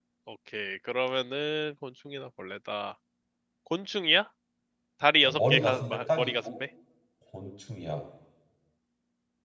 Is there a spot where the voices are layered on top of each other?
Yes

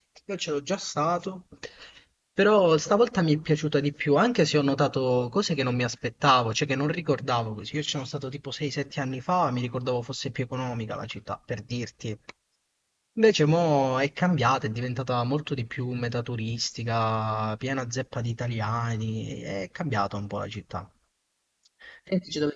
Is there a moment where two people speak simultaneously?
No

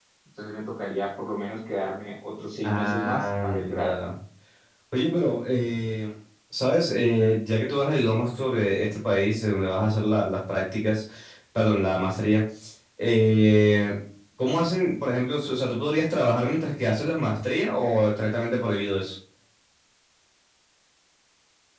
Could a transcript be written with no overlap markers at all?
No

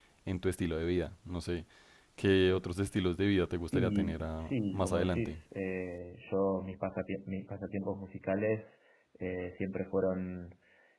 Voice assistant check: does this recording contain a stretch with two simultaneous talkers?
Yes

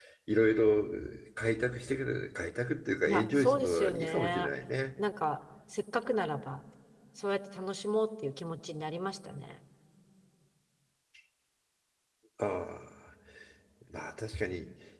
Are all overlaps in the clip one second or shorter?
No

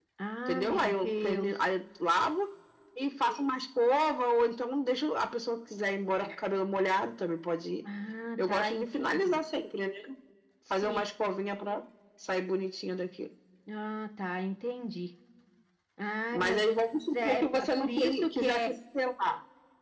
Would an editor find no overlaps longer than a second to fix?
No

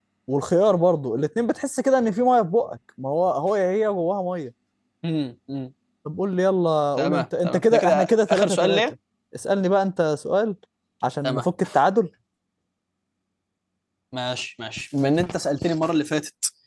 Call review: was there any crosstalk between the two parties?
Yes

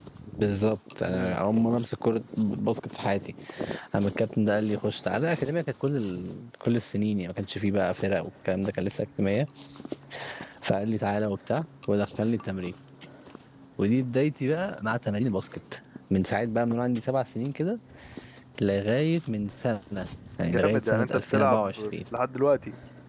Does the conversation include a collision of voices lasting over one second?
Yes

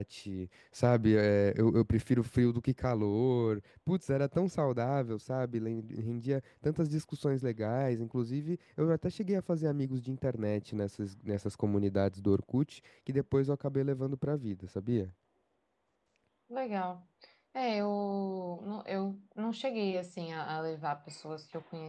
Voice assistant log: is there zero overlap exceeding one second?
Yes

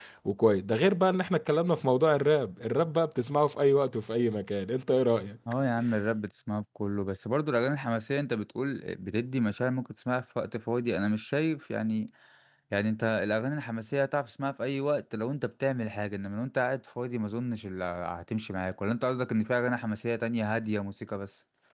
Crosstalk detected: No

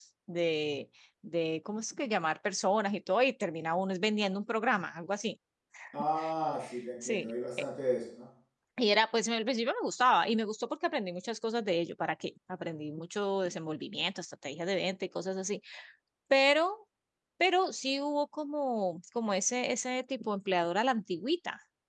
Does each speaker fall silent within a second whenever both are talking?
Yes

